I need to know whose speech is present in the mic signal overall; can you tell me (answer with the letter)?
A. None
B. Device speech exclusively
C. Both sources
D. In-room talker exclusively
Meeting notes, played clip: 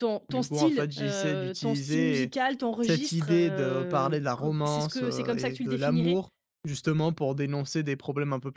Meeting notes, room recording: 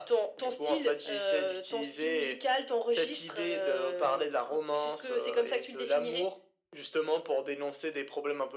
B